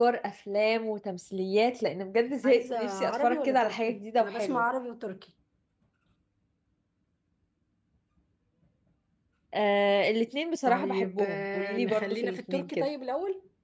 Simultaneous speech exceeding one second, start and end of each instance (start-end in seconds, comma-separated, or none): 2.4-4.6, 10.6-12.9